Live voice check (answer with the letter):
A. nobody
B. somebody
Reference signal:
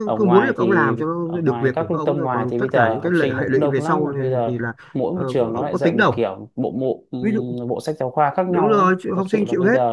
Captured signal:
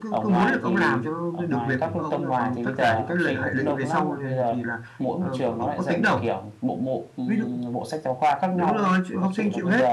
A